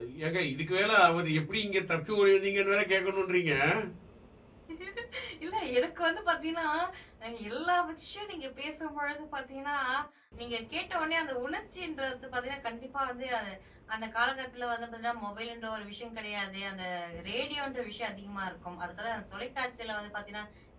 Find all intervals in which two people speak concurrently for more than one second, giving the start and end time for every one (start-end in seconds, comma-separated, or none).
none